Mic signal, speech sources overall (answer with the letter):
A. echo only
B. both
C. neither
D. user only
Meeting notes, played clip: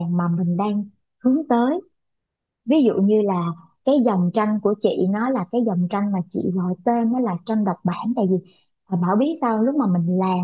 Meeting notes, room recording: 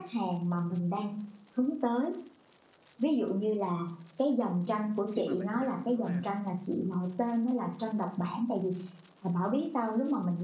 B